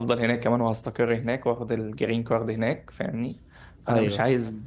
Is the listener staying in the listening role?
Yes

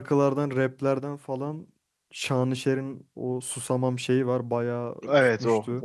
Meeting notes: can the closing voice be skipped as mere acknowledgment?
No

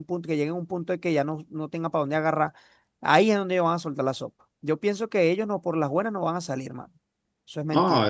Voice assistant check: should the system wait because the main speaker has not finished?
No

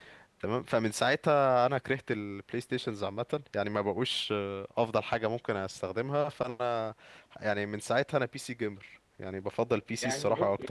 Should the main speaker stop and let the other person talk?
Yes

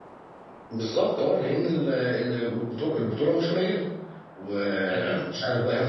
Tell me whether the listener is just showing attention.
Yes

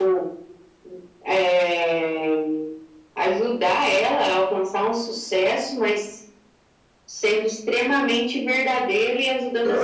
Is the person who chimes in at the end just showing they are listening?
No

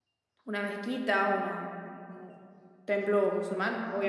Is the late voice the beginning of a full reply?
No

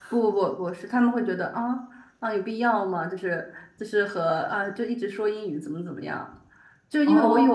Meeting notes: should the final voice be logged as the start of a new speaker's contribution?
No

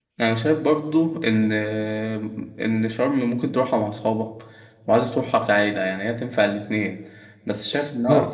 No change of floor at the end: Yes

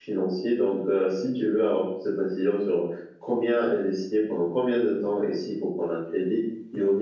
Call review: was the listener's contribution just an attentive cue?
Yes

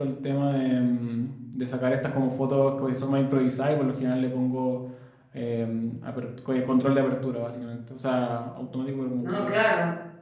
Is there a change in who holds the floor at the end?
Yes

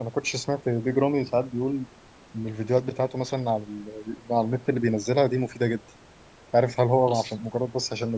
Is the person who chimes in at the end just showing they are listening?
Yes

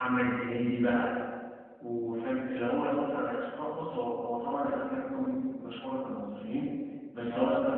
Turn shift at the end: No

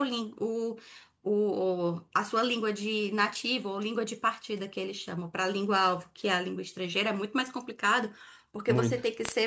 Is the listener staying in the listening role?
Yes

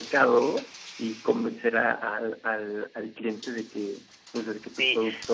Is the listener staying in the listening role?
No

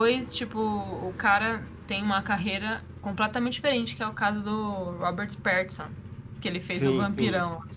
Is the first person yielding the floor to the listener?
Yes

